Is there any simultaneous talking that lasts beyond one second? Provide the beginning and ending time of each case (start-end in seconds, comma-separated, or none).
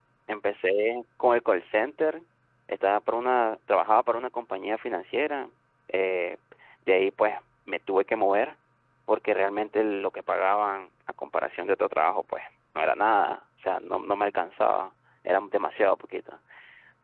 none